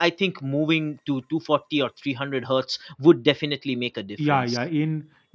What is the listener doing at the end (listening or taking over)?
taking over